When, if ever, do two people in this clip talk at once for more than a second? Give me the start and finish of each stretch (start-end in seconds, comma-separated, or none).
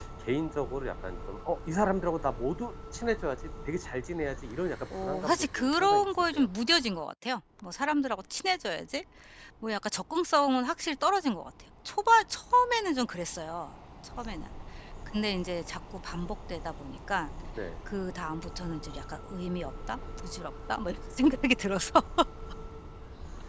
4.9-6.5